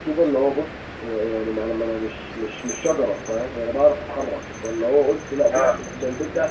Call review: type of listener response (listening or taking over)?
listening